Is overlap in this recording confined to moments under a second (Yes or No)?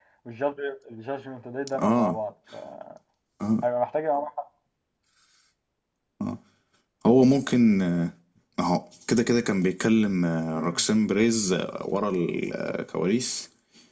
Yes